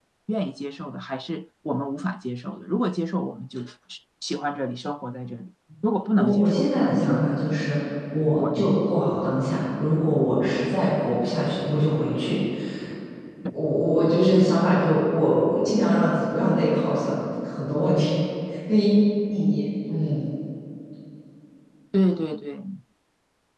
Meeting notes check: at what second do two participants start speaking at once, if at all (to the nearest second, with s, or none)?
6 s